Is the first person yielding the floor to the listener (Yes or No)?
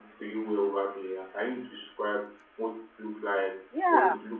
Yes